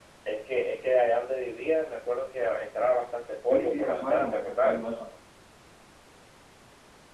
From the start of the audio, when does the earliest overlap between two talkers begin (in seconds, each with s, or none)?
3.5 s